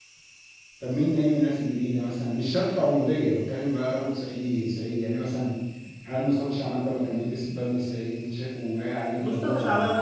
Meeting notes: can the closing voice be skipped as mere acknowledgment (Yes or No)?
No